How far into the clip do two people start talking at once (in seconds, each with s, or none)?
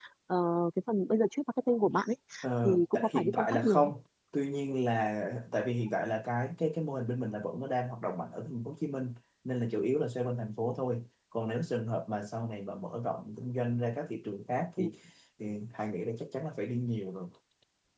2.6 s